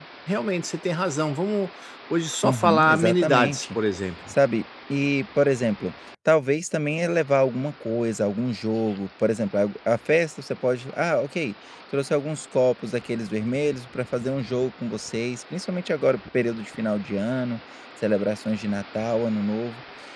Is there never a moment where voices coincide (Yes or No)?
No